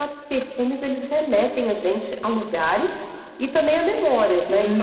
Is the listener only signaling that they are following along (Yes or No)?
No